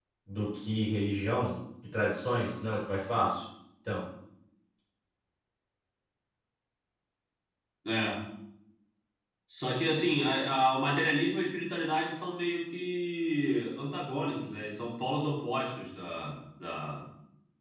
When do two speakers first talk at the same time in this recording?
none

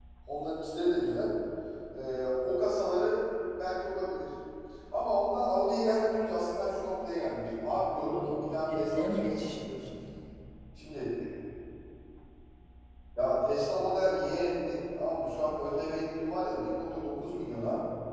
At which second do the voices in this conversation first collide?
7.9 s

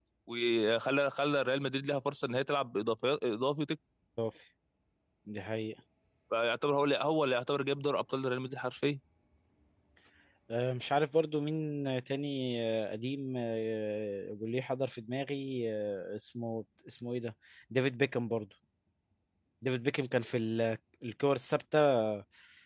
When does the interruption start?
none

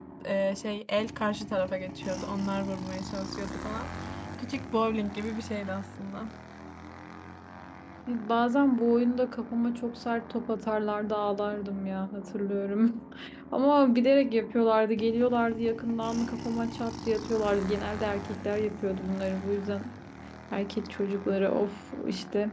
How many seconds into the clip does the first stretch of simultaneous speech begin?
none

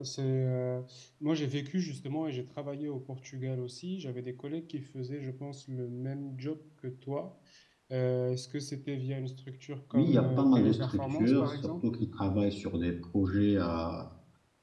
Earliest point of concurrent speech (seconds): 9.9 s

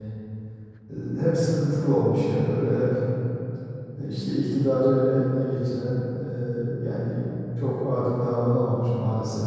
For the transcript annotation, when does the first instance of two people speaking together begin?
none

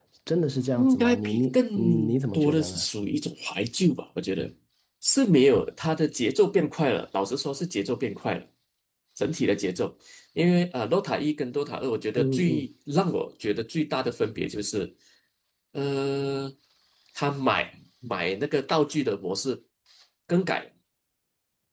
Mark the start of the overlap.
0.8 s

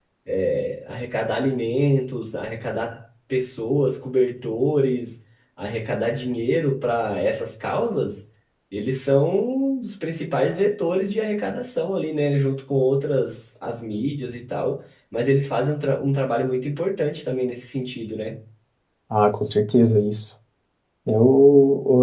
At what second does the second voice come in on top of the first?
none

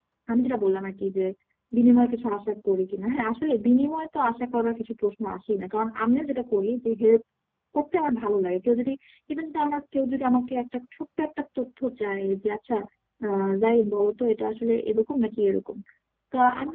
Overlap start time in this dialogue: none

